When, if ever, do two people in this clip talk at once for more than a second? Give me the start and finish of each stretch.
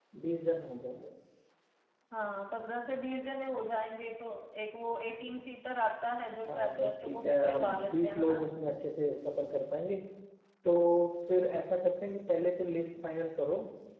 6.5-8.4

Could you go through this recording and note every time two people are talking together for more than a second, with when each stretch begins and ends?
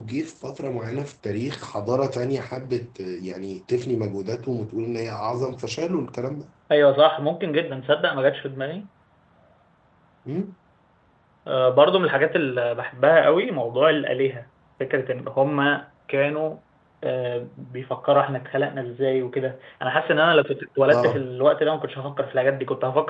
none

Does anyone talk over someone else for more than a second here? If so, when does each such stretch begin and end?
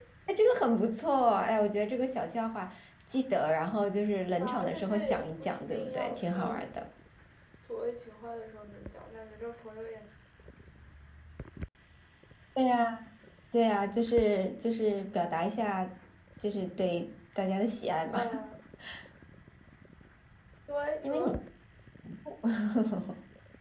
4.4-6.7

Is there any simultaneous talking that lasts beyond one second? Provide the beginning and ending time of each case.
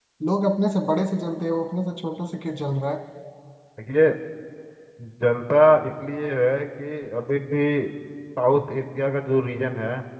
none

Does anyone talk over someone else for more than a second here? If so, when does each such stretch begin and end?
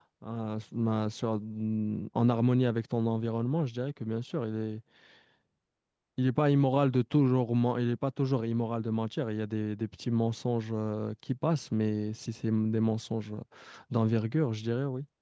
none

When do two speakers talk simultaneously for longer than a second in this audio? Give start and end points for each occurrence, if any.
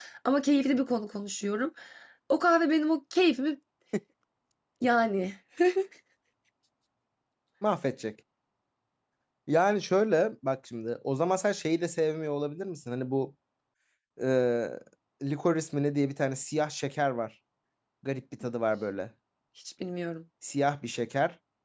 none

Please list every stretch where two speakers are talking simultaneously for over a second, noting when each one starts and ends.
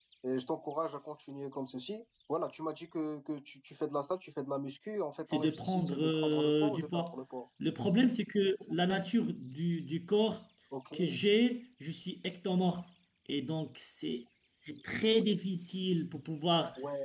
5.3-7.1

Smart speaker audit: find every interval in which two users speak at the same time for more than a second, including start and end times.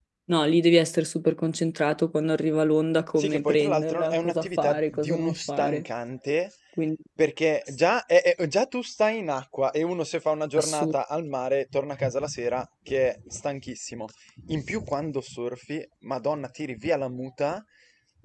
3.2-5.8

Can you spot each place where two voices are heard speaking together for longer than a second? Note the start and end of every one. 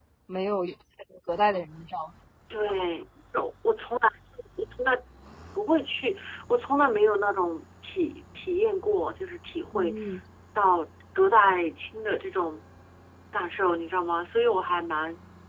none

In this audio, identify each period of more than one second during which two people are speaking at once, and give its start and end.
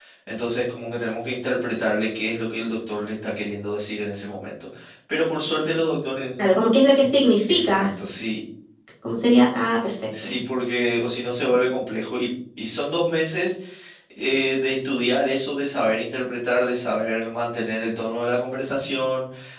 none

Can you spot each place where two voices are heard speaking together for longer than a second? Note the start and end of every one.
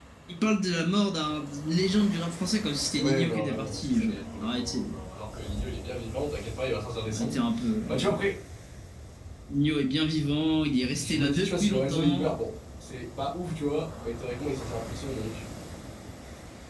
3.0-5.0, 11.0-12.3

